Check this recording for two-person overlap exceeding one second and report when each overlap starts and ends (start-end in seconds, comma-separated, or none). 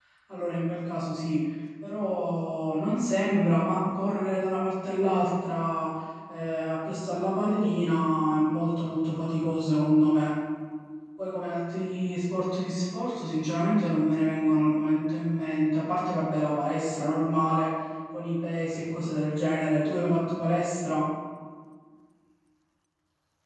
none